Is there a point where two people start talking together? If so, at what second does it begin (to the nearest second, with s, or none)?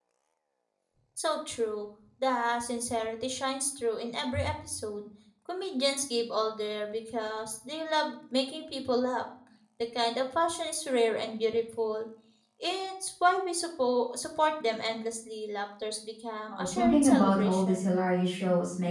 17 s